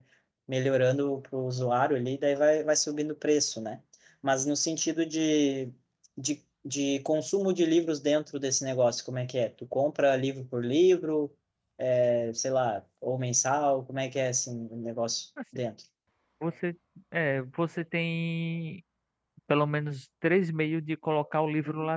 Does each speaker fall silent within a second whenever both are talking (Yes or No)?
Yes